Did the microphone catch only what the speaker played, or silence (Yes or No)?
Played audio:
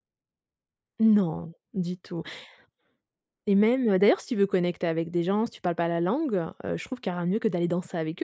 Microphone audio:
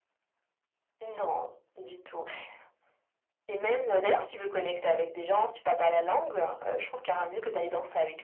Yes